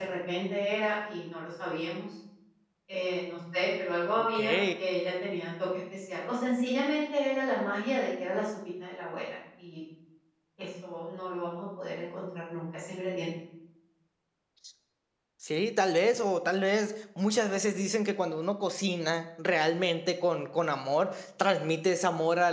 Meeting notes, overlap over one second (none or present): none